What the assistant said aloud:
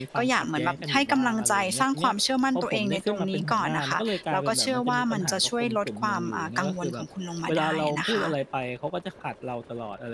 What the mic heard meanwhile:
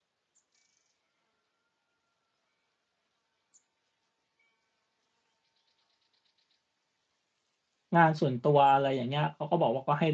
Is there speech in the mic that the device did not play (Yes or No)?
Yes